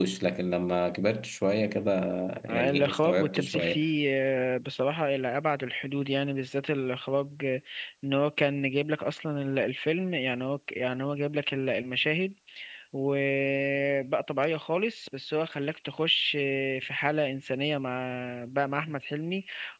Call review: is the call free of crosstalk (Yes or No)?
No